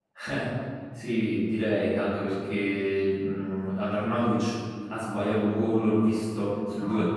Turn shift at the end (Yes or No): No